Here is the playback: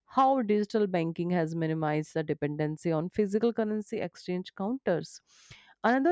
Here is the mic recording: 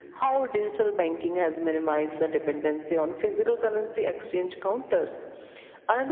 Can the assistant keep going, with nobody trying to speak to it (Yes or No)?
Yes